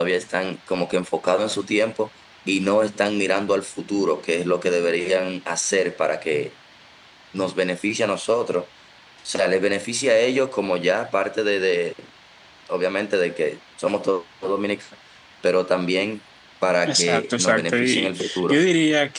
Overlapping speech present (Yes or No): Yes